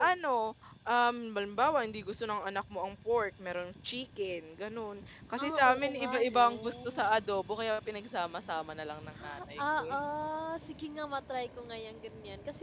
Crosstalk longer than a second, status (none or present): present